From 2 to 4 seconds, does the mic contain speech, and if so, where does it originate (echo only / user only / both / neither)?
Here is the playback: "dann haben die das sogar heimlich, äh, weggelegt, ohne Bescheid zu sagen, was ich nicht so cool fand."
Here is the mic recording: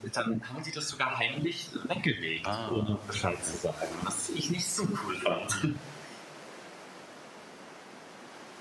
both